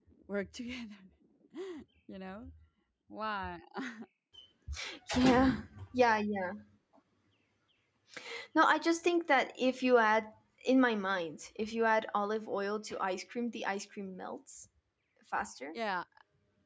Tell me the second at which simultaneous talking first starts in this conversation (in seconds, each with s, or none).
none